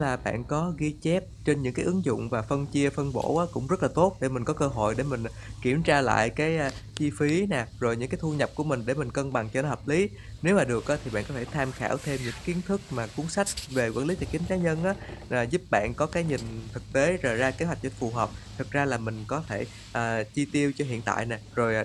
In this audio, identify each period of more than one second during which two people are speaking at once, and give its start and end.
none

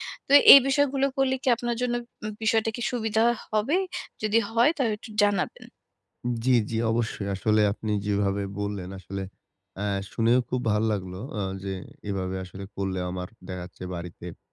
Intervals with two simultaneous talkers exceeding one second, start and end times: none

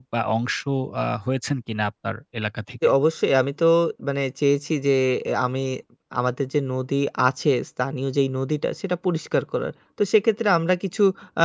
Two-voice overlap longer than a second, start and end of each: none

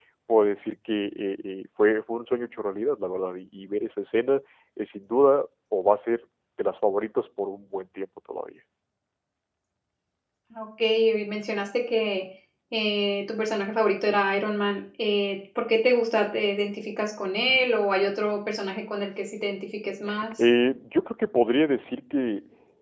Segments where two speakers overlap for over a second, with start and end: none

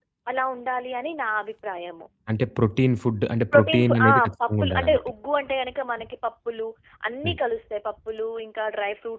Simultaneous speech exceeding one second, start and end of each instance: 3.5-5.0

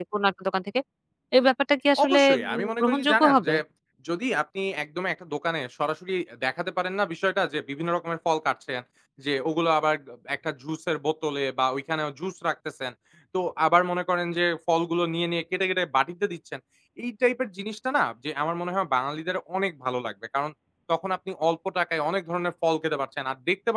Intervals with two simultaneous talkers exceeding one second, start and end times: 2.0-3.5

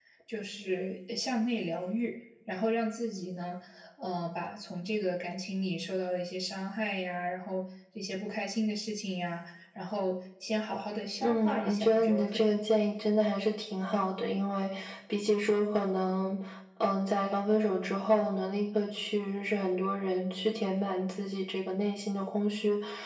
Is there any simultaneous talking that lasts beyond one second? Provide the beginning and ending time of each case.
11.2-12.6

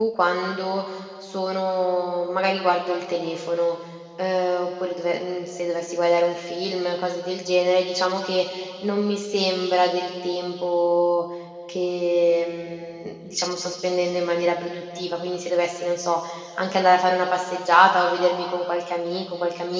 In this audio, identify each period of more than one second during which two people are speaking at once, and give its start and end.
none

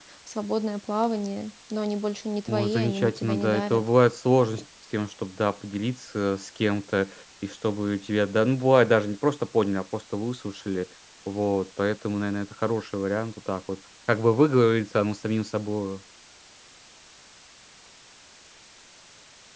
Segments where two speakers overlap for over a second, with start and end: 2.5-3.8

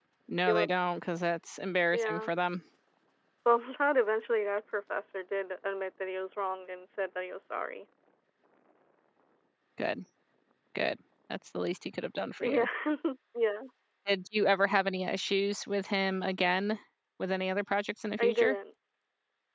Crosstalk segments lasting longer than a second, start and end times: none

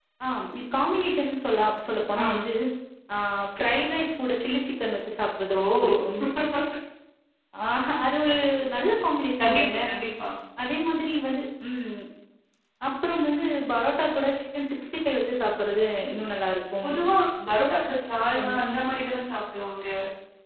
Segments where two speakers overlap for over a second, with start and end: none

